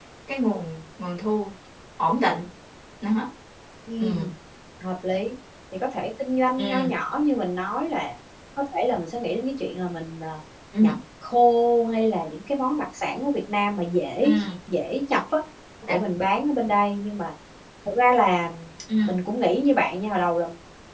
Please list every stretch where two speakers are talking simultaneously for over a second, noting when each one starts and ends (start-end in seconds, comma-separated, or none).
none